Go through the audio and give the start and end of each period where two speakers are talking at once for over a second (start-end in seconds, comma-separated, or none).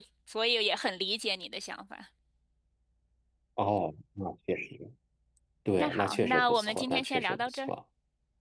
5.8-7.7